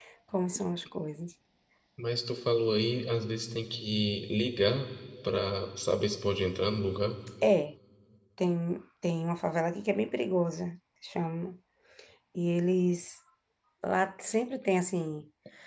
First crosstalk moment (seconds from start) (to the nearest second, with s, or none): none